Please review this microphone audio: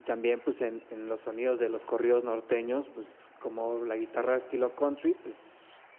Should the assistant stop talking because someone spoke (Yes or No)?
No